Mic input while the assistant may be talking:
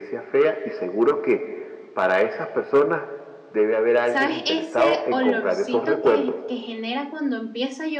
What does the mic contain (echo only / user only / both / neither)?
both